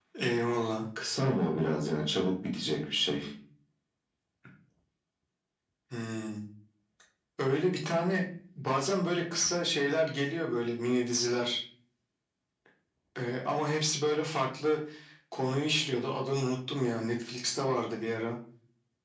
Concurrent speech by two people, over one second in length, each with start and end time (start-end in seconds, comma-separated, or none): none